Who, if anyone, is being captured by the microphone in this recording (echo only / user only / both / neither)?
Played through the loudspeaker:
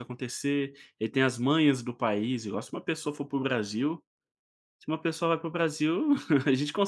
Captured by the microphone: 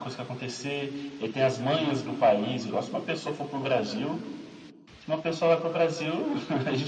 echo only